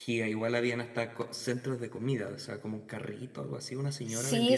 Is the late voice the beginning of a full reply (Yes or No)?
Yes